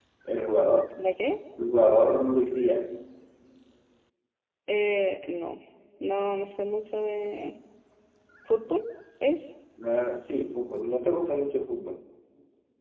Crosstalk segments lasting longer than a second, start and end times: none

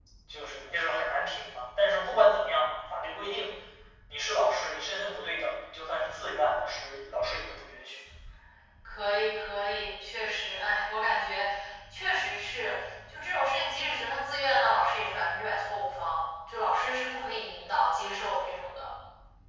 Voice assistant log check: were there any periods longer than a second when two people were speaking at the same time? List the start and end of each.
none

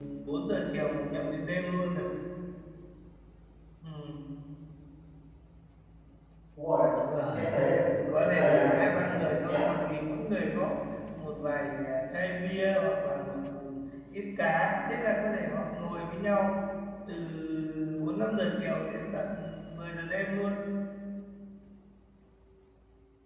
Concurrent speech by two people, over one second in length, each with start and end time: 8.1-9.7

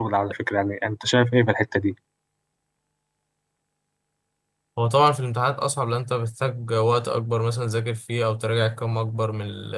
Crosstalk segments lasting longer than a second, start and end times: none

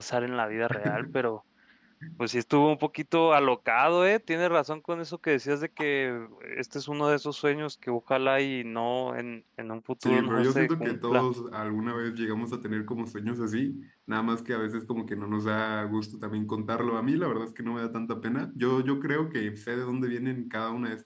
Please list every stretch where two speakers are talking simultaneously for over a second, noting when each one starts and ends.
10.0-11.2

